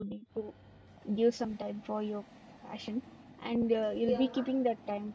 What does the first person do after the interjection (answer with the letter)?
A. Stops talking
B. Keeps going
B